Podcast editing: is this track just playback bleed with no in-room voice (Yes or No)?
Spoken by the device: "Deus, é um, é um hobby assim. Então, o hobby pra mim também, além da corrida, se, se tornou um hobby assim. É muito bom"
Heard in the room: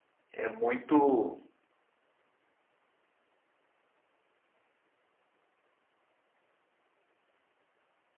No